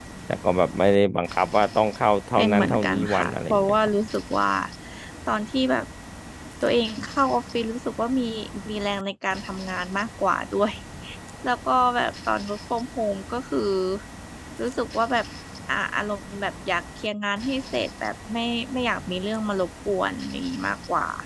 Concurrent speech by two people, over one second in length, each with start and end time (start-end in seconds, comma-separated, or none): 2.4-3.8